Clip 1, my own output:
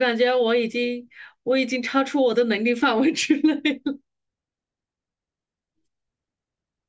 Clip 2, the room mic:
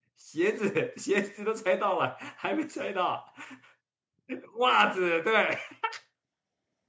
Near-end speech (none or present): present